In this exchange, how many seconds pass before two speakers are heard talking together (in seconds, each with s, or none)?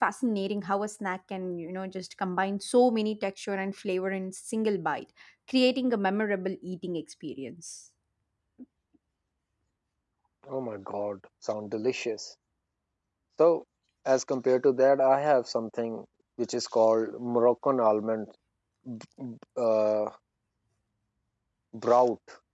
none